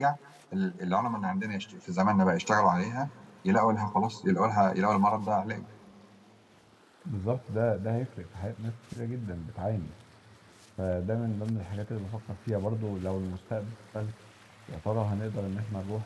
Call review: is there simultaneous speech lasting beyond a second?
No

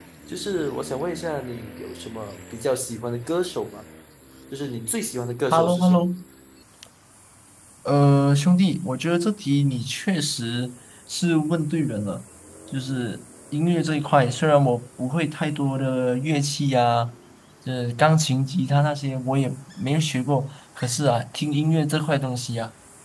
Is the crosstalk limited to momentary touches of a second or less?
Yes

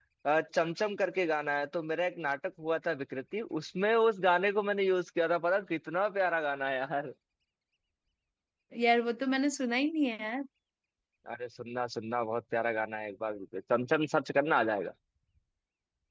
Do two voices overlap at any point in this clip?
No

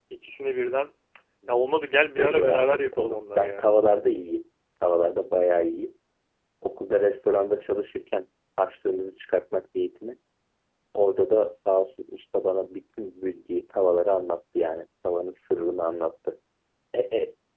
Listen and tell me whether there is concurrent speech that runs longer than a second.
Yes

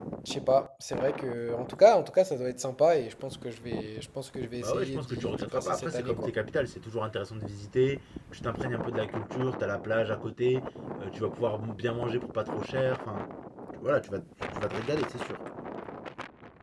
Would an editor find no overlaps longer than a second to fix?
No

